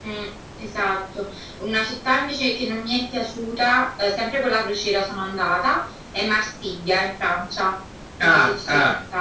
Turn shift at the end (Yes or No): Yes